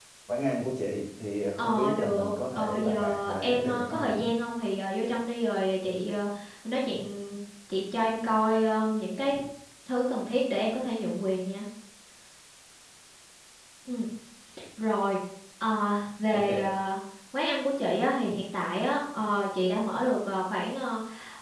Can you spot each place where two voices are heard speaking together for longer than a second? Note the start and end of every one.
1.6-4.1

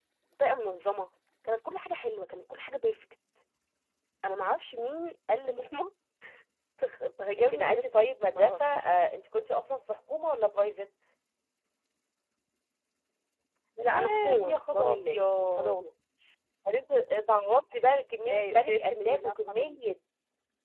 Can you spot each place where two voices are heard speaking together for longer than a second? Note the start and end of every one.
7.4-8.9, 13.8-15.8, 18.3-19.8

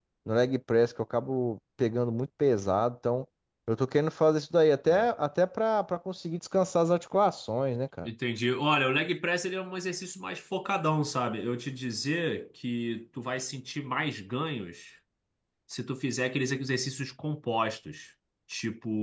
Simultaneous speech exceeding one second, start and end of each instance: none

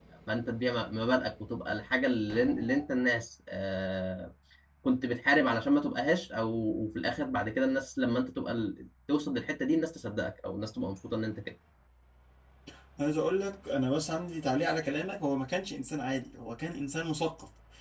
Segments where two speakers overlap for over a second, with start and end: none

